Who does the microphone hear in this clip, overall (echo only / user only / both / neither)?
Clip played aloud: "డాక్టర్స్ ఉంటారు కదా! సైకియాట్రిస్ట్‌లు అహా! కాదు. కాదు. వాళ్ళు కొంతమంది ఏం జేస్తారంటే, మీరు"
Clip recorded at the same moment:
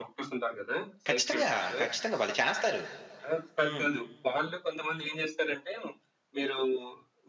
both